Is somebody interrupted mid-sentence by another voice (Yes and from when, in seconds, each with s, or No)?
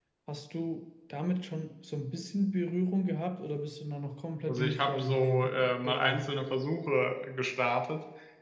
Yes, from 4.5 s